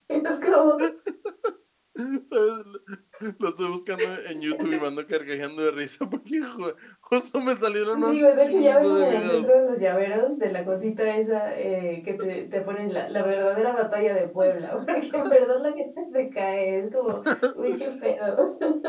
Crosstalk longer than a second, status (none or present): present